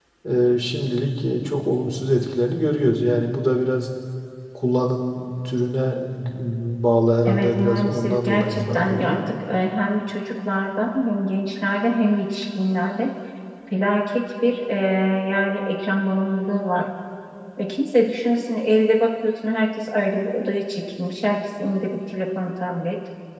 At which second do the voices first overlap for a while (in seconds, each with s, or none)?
7.3 s